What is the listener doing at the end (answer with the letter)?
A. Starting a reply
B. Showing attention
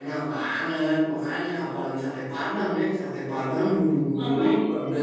B